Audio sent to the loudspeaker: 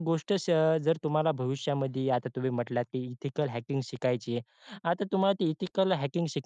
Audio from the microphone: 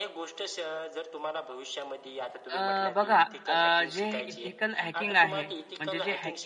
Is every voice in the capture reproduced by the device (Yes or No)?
No